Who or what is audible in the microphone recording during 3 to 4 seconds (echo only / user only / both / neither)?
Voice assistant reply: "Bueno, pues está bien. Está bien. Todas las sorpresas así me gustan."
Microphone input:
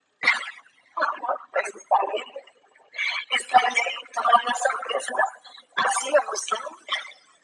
echo only